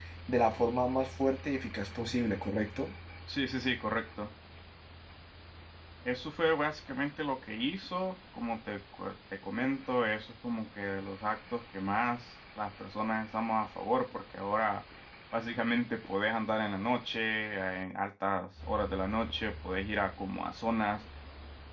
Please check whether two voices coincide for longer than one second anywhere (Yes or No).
No